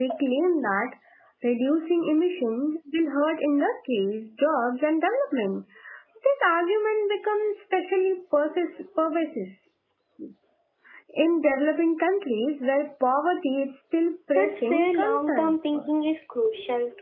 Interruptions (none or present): present